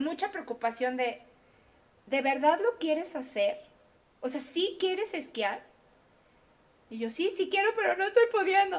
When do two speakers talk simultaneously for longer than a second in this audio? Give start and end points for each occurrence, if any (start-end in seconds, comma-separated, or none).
none